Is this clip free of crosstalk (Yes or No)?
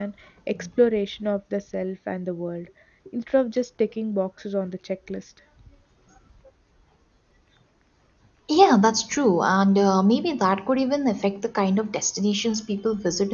Yes